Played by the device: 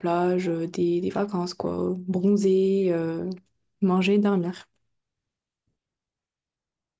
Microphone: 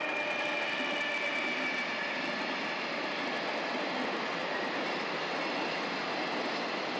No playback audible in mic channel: Yes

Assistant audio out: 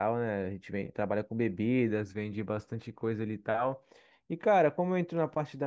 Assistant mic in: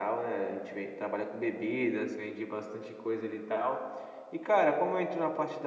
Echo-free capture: No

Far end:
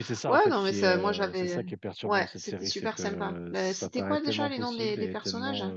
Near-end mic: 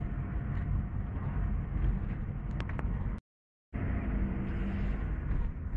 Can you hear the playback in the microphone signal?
No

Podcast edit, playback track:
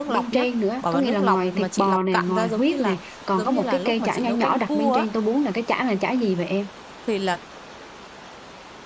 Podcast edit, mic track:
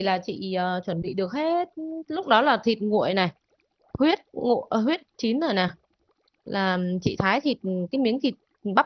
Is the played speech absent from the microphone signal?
Yes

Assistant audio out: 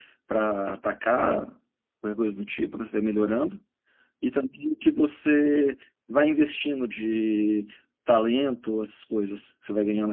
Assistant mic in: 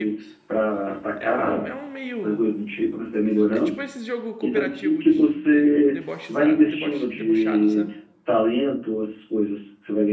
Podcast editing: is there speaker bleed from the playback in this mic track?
Yes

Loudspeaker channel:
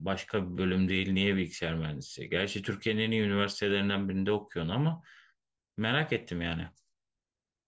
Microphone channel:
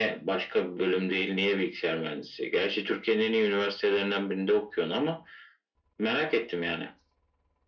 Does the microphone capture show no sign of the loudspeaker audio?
No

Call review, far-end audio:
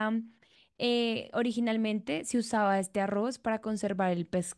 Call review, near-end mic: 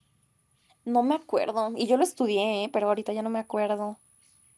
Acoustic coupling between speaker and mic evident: No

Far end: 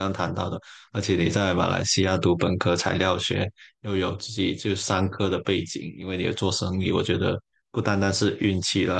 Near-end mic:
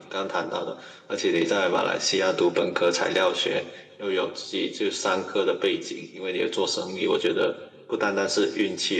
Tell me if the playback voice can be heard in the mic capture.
Yes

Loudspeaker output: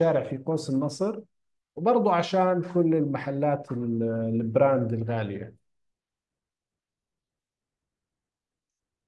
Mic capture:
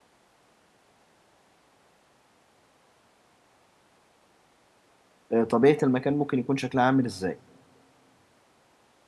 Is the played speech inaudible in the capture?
Yes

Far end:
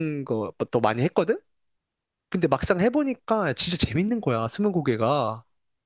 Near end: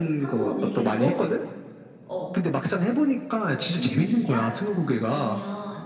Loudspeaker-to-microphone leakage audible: Yes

